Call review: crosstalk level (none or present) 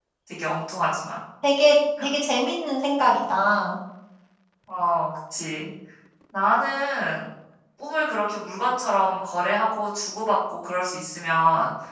none